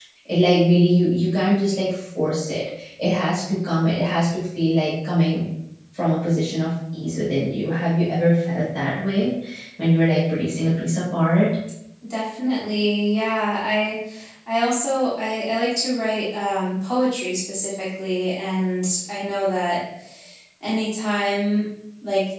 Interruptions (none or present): none